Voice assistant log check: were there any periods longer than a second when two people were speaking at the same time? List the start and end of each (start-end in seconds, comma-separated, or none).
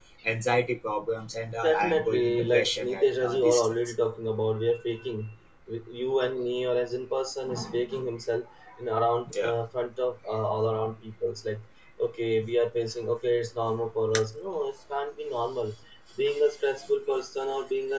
1.6-3.7